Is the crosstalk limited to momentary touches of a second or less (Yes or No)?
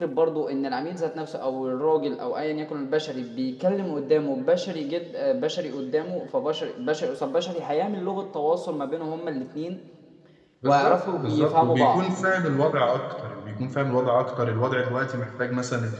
No